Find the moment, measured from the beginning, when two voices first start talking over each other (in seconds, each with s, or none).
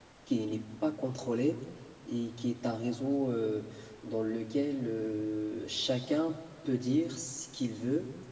none